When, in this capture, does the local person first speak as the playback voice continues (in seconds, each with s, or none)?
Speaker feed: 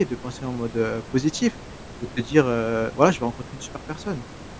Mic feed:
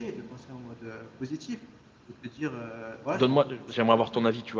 3.1 s